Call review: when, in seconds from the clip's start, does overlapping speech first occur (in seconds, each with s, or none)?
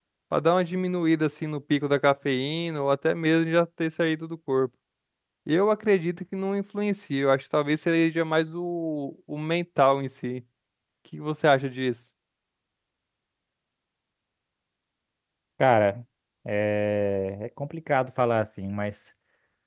none